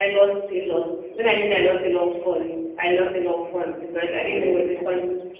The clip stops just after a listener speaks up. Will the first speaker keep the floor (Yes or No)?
Yes